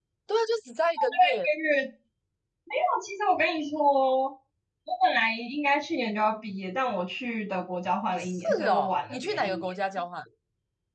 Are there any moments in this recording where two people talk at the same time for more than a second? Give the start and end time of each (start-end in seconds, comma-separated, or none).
8.1-9.7